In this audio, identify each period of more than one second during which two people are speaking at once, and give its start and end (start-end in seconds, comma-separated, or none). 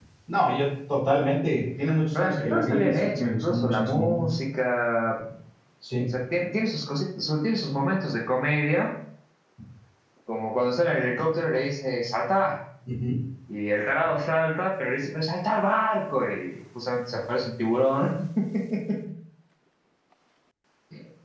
2.2-4.2